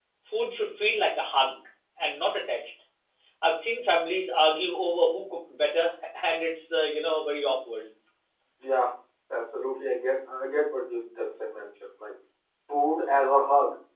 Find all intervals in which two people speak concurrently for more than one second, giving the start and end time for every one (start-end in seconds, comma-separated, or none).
none